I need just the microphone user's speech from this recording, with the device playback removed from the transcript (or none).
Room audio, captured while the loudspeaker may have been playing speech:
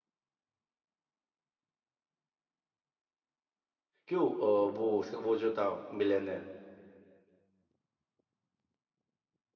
क्यों अ, वो उसका वो जो था मिलन है